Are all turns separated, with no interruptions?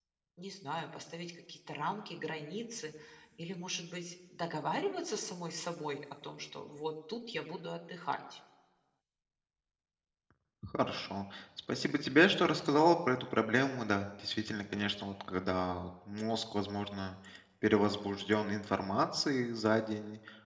Yes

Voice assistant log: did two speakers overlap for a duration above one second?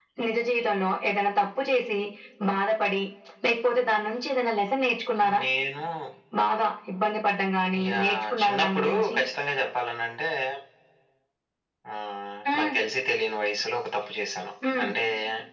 Yes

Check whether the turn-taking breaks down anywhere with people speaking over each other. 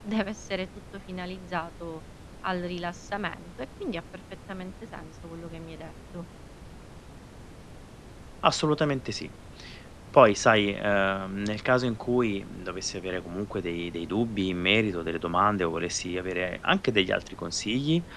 No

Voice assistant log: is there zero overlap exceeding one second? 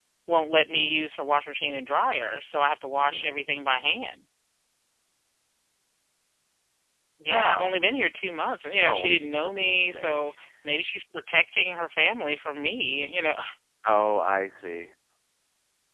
No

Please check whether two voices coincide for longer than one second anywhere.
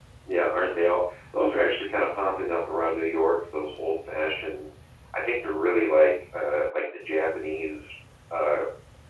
No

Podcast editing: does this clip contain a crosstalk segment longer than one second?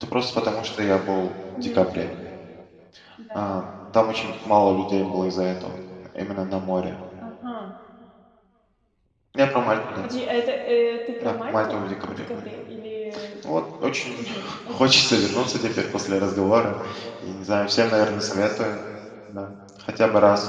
Yes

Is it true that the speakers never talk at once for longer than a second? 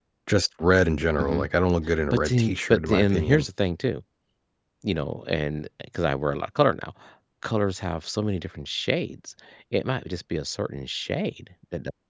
No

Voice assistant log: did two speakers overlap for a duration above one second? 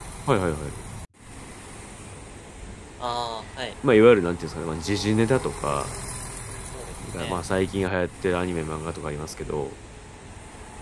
No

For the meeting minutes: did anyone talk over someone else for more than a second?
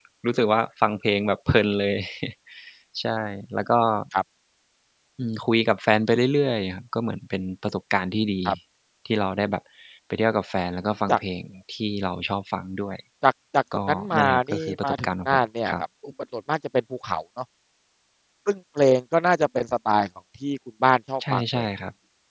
Yes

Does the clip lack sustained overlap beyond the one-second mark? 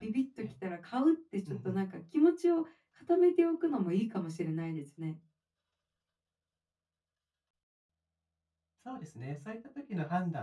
Yes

